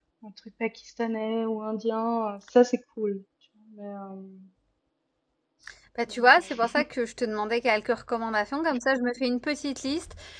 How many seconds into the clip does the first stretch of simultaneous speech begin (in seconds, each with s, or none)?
none